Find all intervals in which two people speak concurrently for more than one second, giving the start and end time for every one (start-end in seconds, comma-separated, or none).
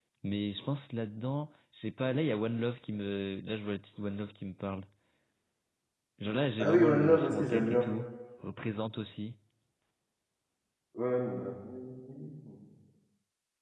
6.6-7.8